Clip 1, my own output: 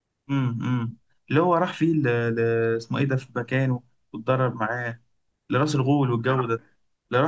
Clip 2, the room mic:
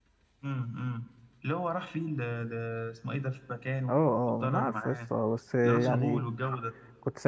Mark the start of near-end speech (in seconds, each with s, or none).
3.9 s